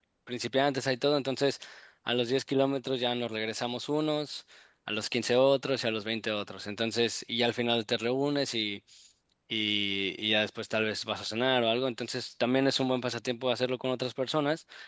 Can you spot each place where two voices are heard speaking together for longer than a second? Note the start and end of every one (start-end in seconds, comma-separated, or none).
none